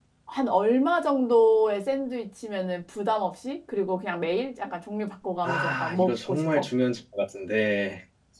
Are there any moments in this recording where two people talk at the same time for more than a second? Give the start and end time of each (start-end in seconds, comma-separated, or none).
5.4-6.6